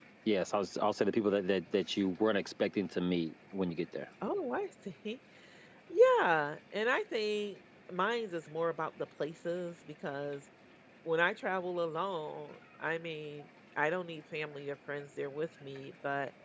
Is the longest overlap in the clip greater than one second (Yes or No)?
No